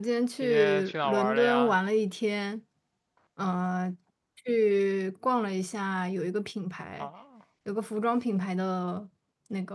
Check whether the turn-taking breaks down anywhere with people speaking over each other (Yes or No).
Yes